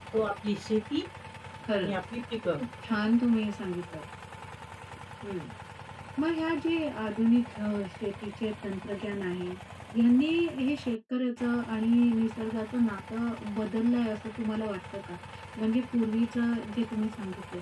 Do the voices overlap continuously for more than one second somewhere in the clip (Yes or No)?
No